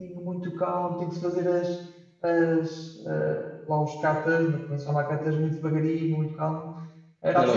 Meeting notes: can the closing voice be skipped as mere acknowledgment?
No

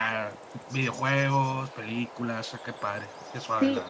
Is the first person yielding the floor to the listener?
Yes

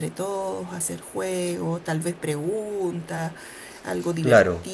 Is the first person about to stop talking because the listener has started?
No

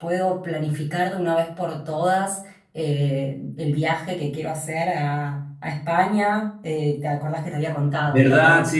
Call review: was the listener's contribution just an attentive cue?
No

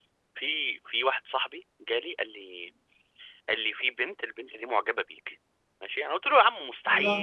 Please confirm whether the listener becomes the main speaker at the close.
No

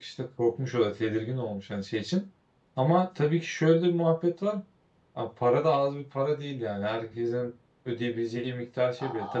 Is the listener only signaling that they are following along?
No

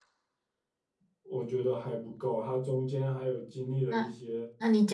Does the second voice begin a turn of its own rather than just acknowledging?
Yes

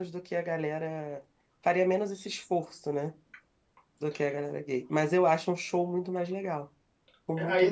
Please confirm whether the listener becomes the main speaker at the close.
Yes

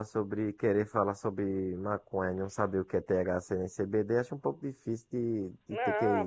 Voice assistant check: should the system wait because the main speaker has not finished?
No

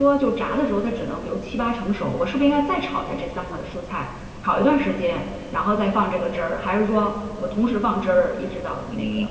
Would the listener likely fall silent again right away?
No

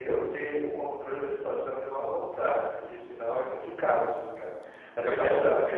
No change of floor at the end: No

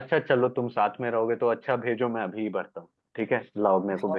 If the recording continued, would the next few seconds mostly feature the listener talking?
Yes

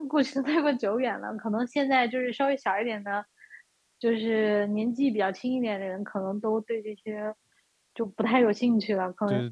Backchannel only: No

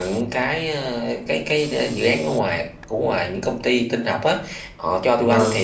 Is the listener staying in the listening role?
Yes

